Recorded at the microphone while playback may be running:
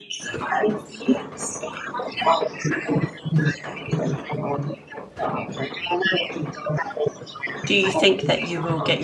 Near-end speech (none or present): present